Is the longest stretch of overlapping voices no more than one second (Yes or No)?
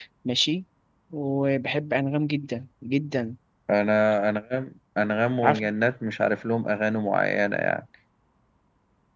Yes